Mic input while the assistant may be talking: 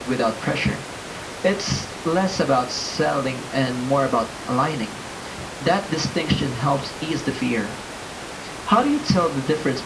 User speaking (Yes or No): No